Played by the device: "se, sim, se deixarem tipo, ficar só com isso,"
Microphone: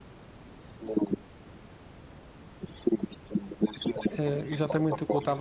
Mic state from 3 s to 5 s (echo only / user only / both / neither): both